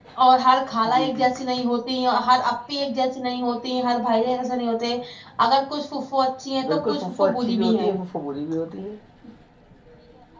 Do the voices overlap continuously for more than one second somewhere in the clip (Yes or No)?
Yes